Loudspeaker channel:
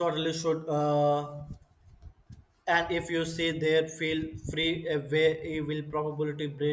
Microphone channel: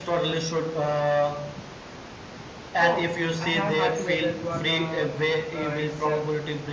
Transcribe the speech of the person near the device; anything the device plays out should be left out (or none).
Oh, I have heard to that that one. Uh, uh, it's uh,